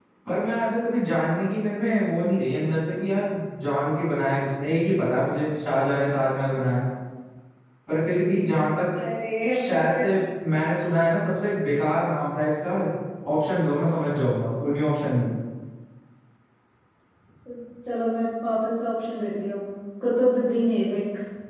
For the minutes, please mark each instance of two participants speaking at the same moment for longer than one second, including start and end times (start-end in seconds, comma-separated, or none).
none